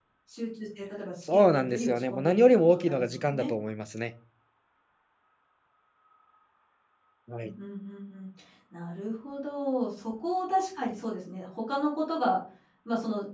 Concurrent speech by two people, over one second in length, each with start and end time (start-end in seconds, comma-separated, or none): 1.3-3.5